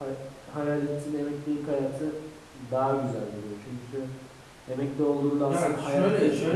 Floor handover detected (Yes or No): Yes